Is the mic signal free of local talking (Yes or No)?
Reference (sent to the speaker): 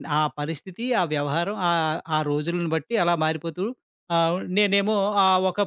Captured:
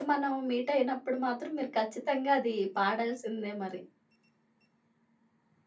No